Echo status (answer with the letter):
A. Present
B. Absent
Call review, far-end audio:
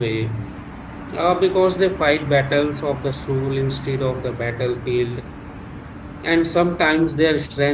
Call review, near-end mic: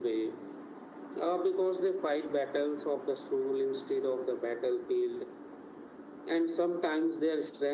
A